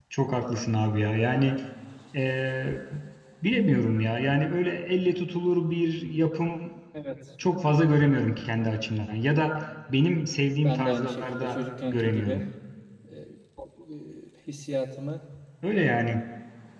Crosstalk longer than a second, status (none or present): present